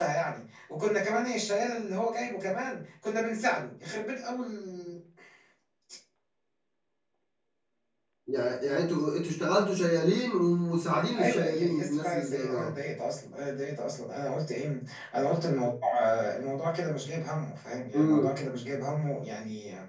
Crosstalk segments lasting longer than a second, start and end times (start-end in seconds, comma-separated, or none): 11.2-12.8